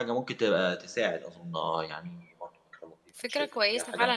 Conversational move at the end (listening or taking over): taking over